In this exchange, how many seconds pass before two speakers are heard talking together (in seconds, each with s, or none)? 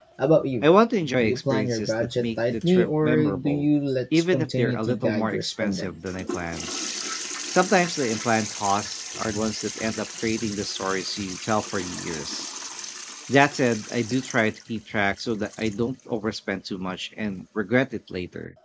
1.2 s